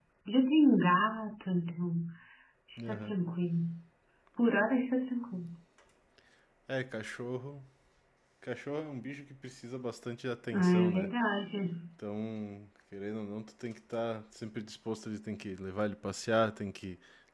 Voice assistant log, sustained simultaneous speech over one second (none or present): none